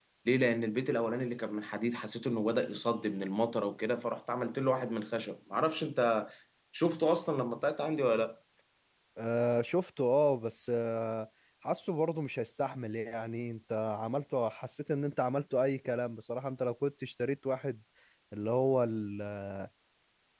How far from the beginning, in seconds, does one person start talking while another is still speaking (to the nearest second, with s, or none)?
none